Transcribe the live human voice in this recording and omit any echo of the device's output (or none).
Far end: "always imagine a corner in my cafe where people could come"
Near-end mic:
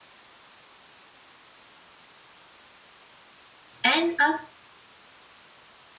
And a